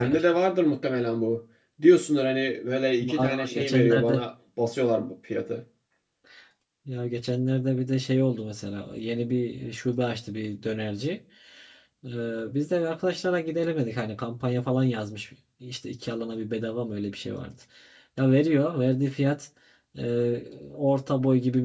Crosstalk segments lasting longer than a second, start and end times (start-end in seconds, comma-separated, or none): 3.0-4.2